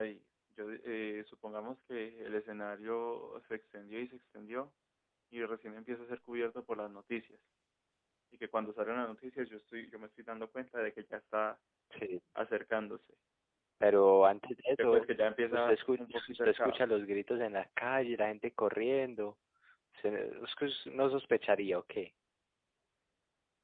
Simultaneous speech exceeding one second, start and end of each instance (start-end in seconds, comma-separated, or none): 15.5-16.8